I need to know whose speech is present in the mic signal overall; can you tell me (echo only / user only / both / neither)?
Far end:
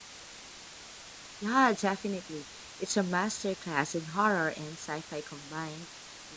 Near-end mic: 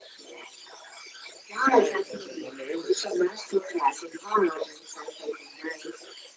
both